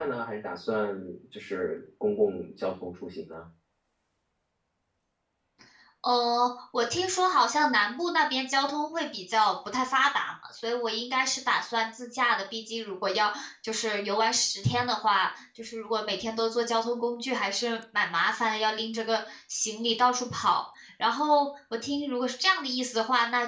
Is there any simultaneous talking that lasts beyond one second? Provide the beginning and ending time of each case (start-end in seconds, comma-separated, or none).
none